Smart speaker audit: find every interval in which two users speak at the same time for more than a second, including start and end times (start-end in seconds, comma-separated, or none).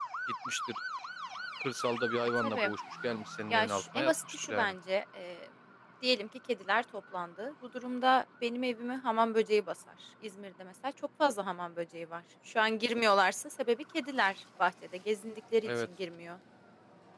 3.5-4.7